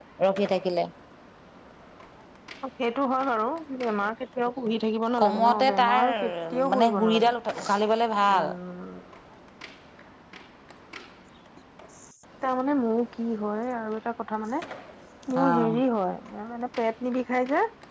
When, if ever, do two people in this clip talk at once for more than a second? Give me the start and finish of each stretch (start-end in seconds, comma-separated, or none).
5.2-7.3